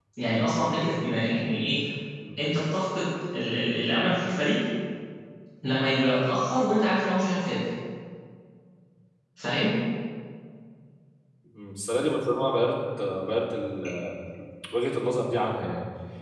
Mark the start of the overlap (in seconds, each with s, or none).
none